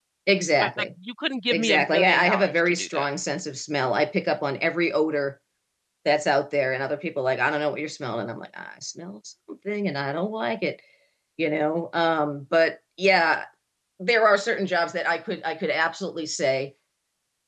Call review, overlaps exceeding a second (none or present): present